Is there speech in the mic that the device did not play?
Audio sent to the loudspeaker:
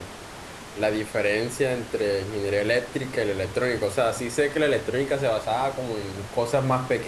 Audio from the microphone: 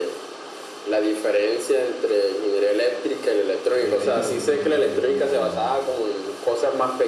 Yes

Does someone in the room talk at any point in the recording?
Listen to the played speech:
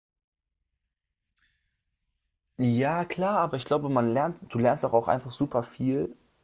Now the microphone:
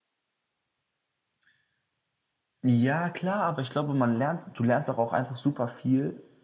No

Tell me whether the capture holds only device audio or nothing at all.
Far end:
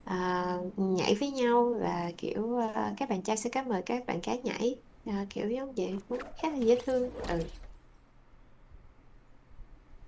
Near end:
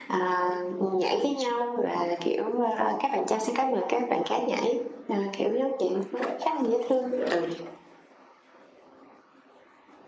Yes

